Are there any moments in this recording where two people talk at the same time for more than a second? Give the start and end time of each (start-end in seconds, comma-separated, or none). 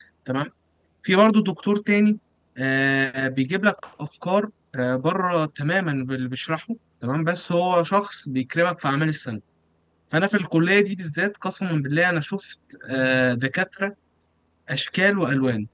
none